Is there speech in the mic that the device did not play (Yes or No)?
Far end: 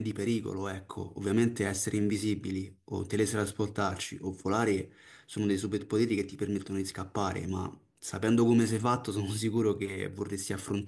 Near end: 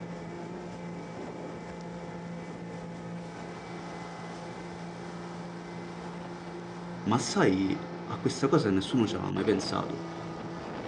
Yes